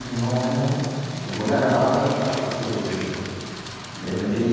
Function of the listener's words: listening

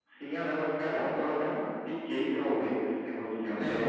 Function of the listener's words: taking over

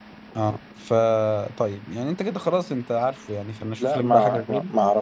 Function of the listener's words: taking over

